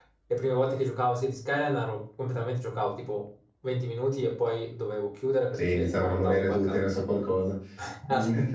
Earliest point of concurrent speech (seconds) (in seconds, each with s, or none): 5.5 s